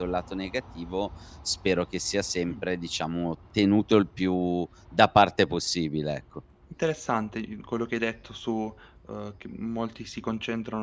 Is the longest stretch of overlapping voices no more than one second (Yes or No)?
Yes